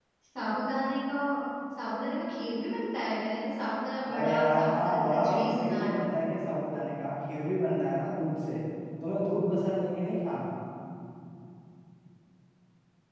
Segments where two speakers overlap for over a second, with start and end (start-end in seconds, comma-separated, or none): 4.1-6.0